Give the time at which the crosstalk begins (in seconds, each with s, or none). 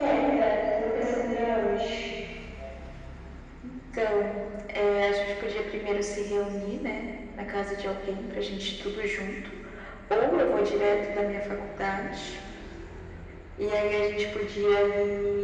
none